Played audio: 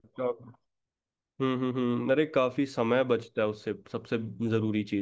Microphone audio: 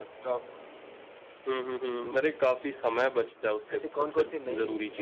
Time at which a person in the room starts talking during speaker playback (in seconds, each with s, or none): 3.7 s